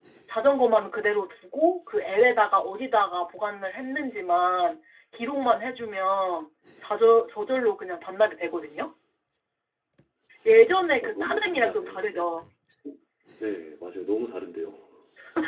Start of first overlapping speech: 11.0 s

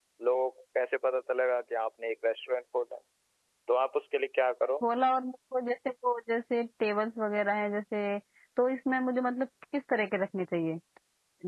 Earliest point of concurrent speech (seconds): none

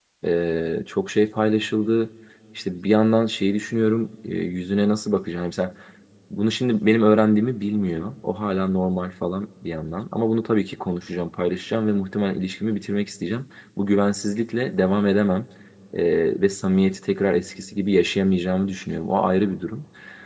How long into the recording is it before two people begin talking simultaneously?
none

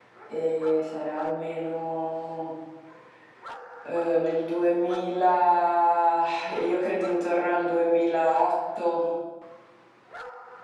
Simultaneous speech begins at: none

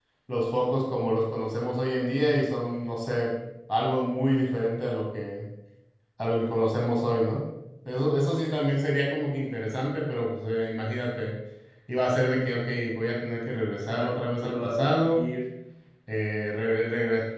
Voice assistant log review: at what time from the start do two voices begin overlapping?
14.0 s

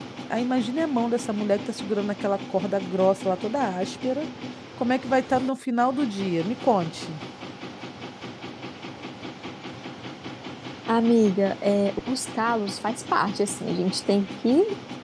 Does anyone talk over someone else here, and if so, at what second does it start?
none

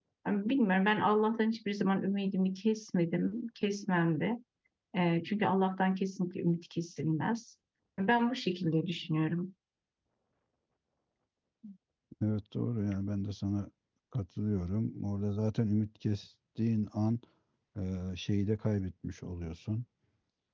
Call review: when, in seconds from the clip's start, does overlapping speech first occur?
none

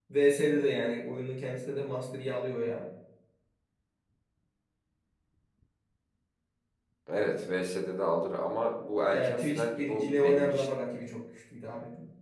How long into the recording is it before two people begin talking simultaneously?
9.1 s

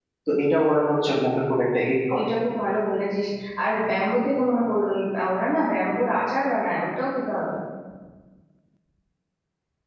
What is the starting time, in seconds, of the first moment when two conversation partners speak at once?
none

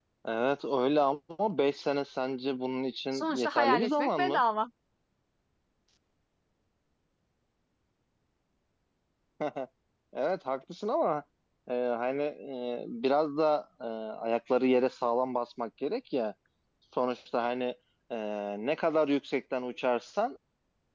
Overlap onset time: 3.1 s

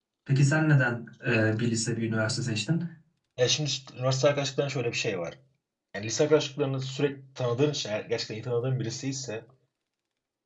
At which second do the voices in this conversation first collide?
none

